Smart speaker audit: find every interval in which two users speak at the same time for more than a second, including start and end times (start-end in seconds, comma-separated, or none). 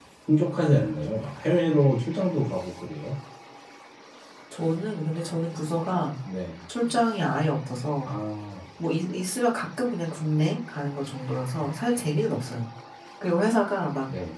none